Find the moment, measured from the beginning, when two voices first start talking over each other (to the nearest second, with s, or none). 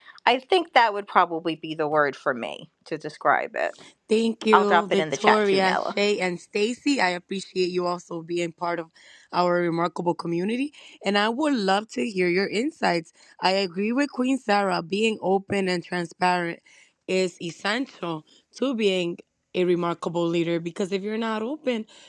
5 s